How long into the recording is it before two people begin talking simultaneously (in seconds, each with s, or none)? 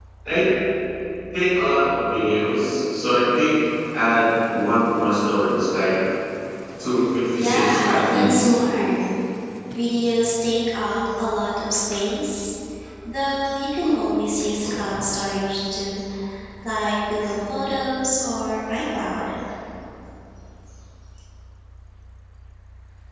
7.3 s